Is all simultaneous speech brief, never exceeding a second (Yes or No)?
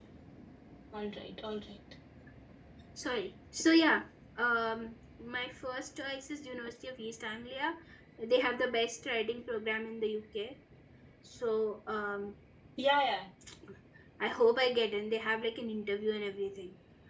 Yes